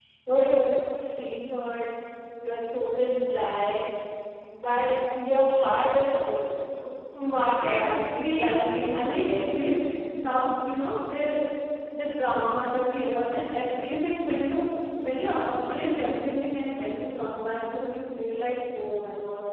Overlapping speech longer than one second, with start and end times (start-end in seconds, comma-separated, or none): 7.7-9.9